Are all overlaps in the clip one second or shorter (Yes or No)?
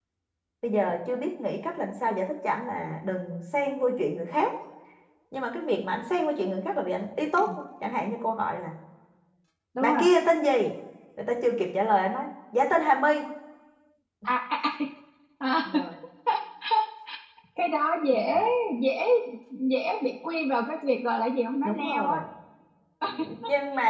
Yes